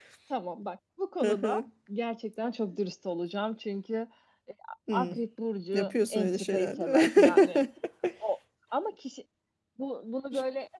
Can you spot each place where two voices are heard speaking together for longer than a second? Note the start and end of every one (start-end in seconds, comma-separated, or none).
5.7-7.6